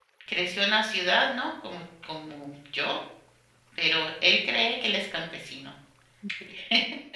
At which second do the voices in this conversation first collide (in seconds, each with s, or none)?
none